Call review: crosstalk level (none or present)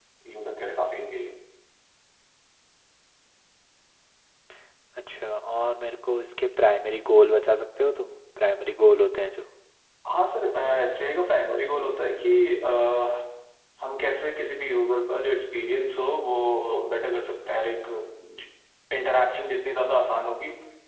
none